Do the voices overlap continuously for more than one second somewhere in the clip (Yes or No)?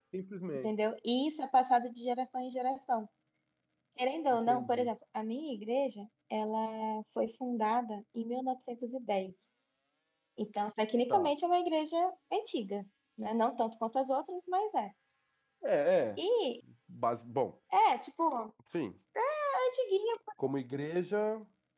No